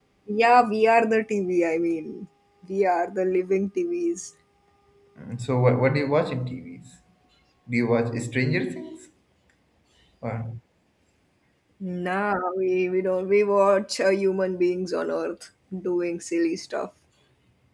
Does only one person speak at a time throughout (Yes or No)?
Yes